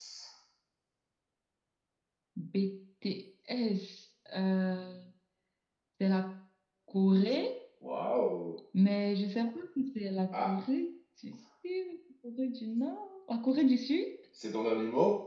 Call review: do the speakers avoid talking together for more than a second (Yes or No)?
Yes